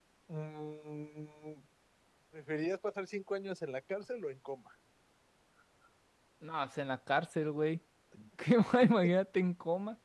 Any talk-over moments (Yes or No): No